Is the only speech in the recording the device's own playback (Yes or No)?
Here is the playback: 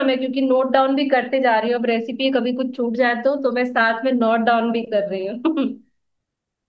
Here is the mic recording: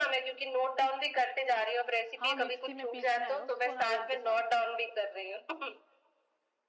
No